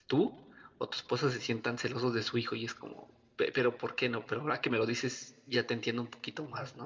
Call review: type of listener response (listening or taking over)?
taking over